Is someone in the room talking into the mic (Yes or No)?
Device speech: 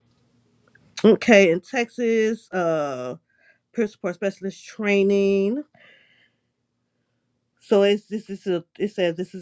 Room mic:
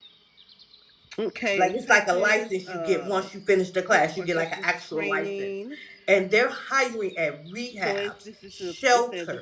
Yes